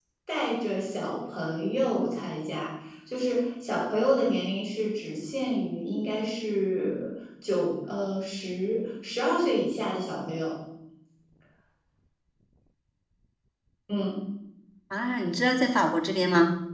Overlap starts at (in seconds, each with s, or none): none